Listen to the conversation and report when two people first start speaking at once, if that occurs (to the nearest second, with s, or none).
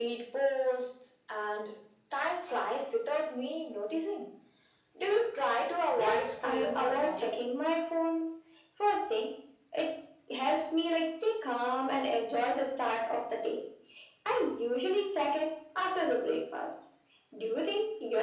6 s